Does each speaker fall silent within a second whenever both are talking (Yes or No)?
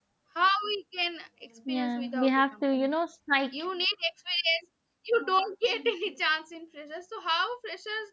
No